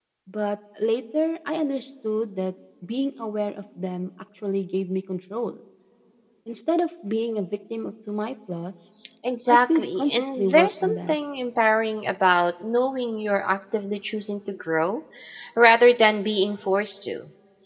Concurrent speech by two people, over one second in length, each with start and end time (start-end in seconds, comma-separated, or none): 9.5-11.2